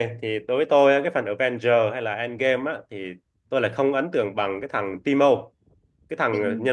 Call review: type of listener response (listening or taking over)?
listening